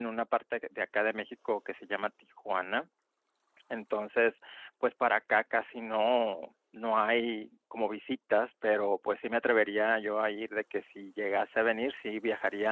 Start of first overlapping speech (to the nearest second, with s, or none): none